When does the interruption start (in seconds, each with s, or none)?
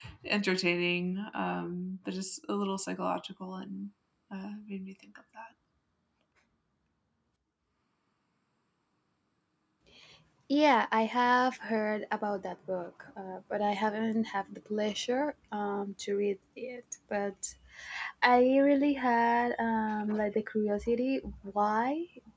none